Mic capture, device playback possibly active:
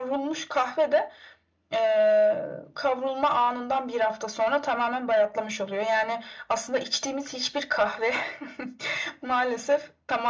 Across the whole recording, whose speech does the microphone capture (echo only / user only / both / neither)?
echo only